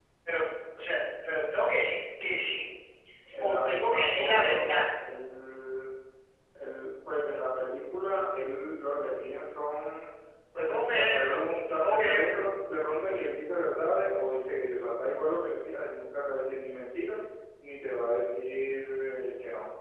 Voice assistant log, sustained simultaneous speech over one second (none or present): present